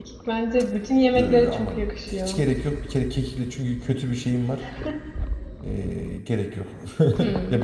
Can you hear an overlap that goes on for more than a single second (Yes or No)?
Yes